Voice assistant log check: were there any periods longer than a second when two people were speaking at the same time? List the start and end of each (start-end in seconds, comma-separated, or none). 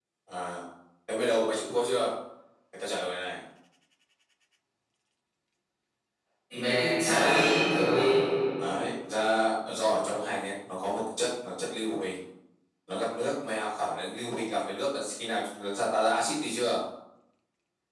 none